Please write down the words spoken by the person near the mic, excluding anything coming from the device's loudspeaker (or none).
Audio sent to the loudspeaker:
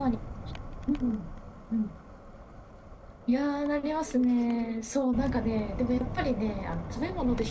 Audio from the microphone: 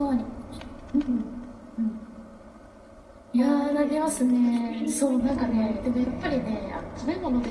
ああ、いいですね。私も広島行ったことないですね。